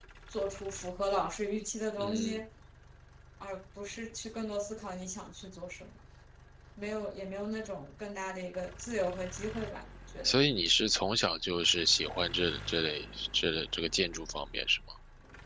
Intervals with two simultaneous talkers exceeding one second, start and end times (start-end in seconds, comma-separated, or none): none